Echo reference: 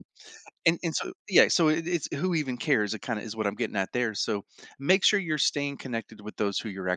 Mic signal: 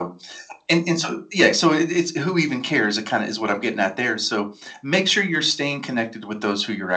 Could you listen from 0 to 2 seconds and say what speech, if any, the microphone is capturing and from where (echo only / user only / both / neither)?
echo only